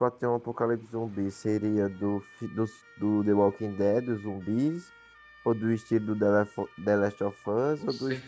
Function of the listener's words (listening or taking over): listening